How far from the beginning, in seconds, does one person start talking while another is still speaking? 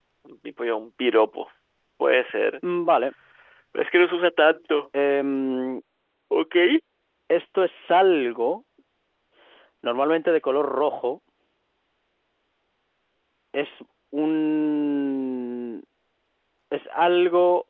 none

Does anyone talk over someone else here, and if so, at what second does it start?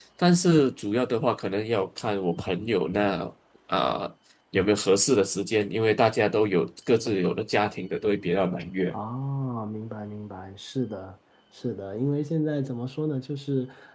none

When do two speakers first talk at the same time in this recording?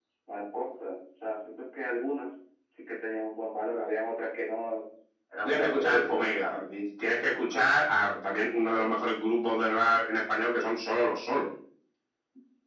5.4 s

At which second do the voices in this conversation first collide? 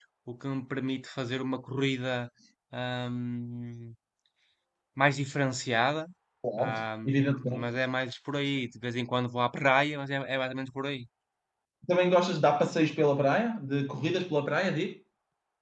6.6 s

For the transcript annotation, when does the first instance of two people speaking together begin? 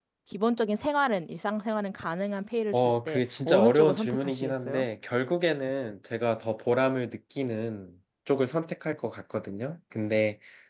2.7 s

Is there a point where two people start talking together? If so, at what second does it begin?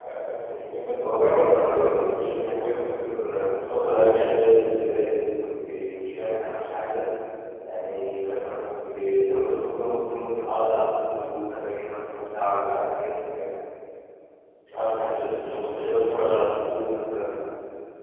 1.0 s

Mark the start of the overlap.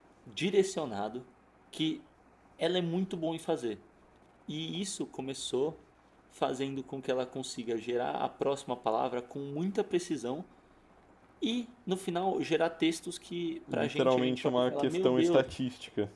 13.7 s

